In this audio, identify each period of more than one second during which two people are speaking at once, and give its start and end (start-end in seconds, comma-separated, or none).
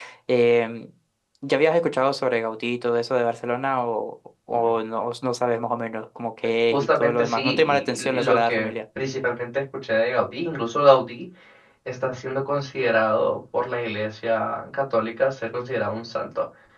6.7-8.7